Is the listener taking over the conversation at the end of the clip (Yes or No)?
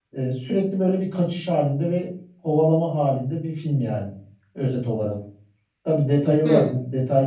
No